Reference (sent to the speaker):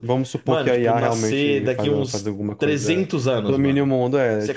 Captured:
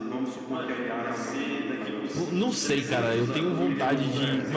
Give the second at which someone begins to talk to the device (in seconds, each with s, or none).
2.1 s